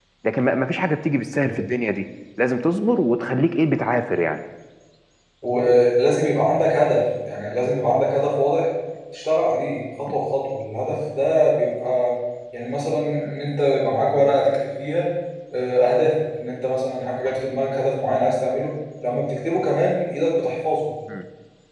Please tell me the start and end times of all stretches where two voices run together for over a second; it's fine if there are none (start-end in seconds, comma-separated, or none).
none